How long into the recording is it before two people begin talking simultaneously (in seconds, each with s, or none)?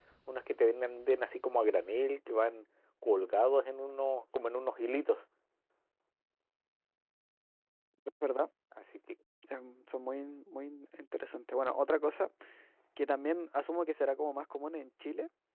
none